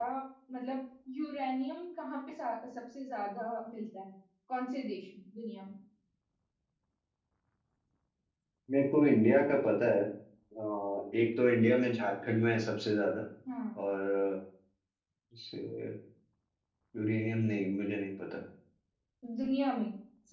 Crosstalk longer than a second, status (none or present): none